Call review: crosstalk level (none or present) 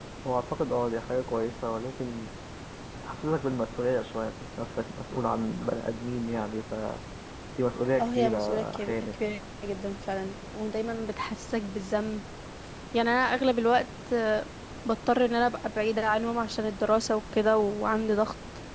present